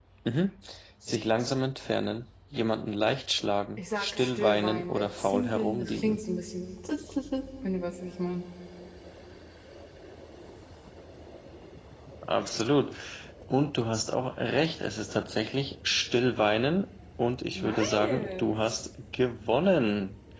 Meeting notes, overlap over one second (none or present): present